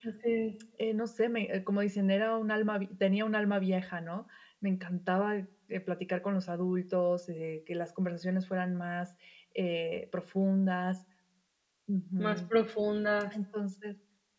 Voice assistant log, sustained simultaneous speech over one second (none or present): none